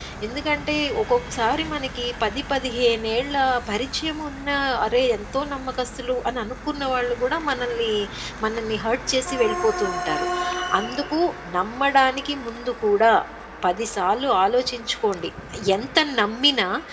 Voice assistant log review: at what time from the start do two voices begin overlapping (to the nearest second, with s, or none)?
none